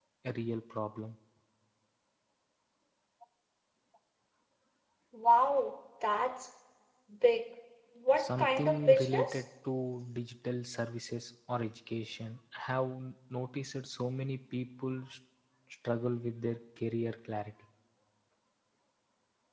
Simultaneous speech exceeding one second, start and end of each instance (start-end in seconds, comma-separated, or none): 8.2-9.4